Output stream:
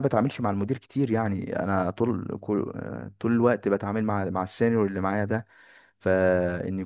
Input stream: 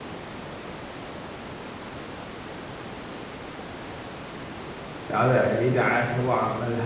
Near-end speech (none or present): present